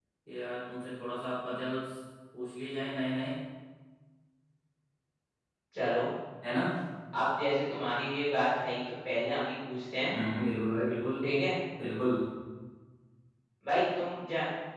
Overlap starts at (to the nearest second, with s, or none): none